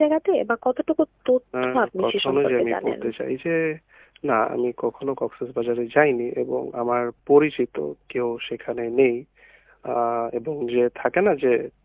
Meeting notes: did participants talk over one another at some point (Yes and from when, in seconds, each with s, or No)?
Yes, from 1.6 s